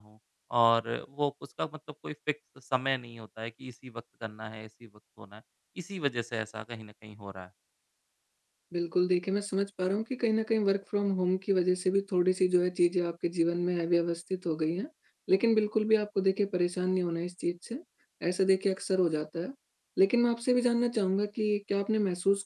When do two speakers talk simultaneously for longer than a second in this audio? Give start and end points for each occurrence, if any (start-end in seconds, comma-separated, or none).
none